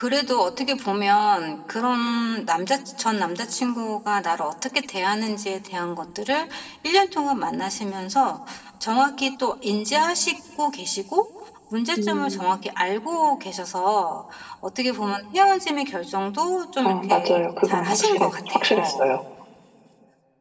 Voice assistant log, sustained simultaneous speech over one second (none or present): present